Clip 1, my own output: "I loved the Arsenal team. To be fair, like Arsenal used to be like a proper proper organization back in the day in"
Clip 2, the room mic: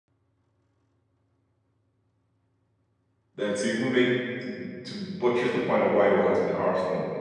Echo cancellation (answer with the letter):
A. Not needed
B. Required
A